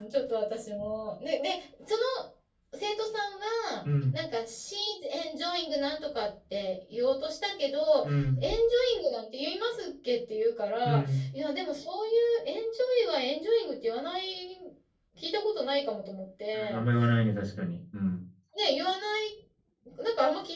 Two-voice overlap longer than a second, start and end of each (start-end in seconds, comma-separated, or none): none